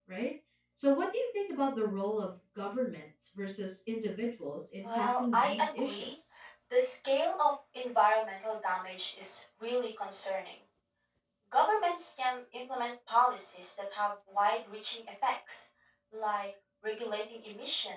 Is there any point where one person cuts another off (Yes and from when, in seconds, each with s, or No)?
Yes, from 4.8 s